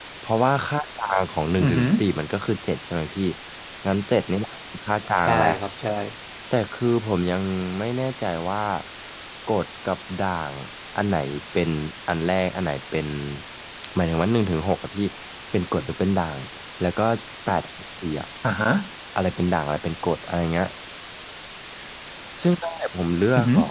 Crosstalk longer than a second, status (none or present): none